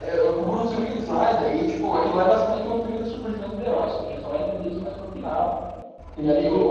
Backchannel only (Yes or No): Yes